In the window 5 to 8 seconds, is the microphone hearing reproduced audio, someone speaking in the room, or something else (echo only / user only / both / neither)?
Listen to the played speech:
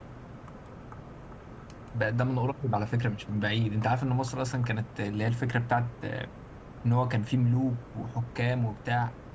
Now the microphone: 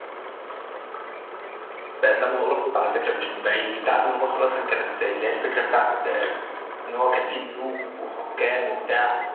echo only